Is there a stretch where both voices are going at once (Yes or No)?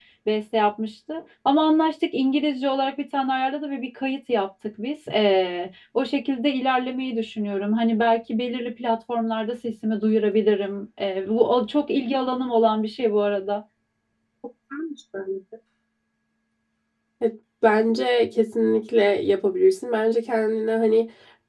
No